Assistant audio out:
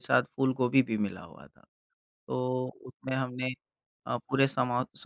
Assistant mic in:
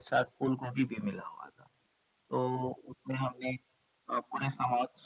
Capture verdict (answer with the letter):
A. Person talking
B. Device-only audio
B